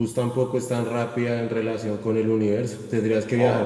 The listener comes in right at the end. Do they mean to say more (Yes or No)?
No